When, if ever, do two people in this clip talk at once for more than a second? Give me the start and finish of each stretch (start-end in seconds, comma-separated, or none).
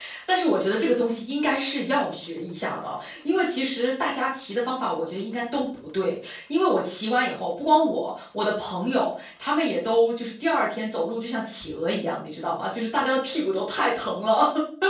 none